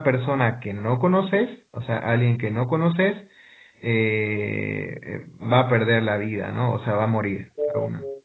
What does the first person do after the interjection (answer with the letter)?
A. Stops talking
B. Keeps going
B